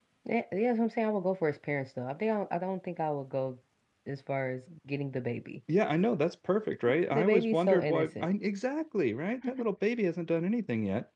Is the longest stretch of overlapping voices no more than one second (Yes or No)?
No